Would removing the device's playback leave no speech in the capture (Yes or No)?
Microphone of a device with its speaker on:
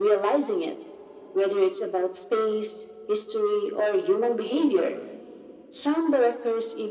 Yes